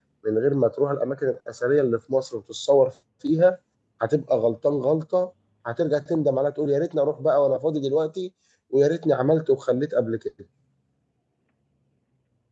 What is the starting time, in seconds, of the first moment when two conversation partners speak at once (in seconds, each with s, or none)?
none